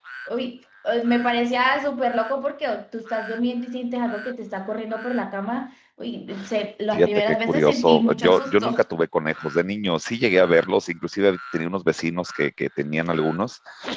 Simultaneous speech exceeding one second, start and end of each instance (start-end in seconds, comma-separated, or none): 6.9-8.8